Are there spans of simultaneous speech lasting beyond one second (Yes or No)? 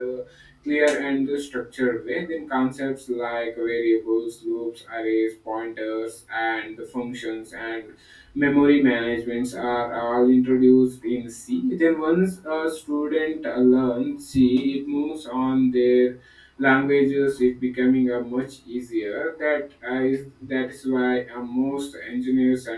No